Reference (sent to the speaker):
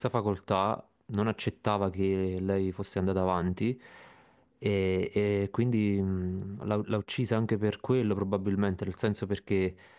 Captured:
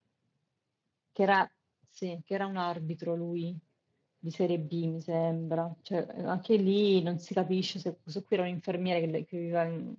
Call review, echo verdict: none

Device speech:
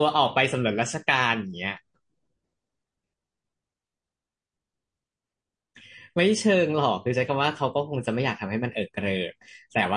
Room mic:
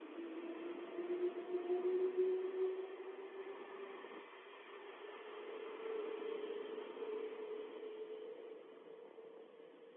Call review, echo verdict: none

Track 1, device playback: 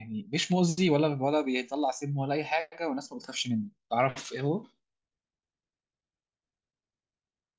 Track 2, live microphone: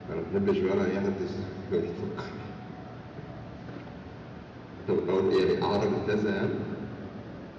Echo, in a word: none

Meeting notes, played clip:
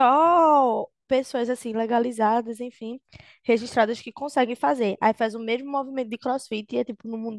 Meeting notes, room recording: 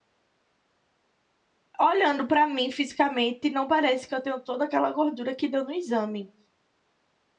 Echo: none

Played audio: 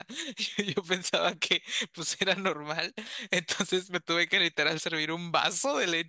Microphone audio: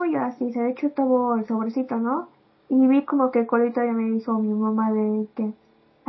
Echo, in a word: none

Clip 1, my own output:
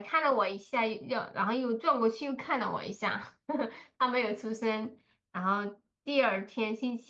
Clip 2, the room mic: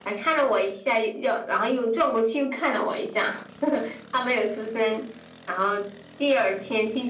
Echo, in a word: present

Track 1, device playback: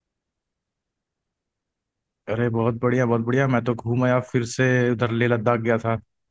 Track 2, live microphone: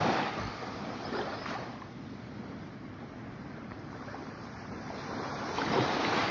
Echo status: none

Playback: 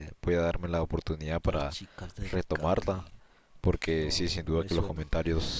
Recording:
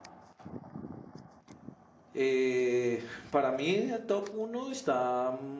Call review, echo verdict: none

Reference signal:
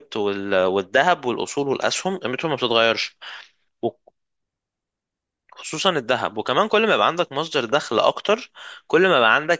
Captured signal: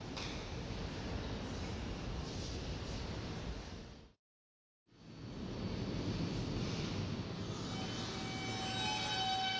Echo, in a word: none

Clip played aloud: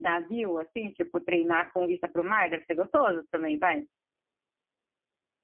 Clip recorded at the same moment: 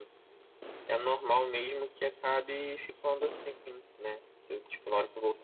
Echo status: none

